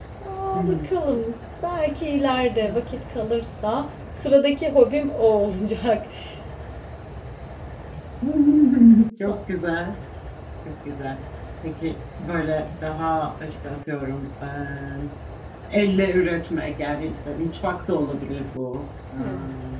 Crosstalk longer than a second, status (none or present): none